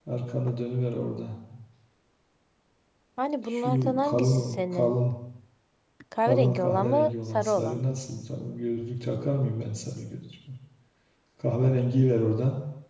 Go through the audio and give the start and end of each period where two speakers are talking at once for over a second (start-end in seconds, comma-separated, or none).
3.5-5.0, 6.2-7.9